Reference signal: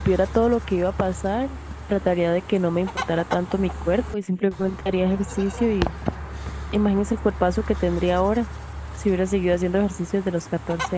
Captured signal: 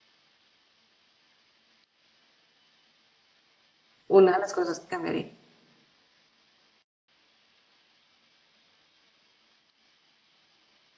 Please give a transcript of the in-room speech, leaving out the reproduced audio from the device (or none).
una de las cosas que cambiaría.